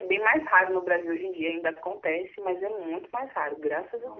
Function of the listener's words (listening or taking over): taking over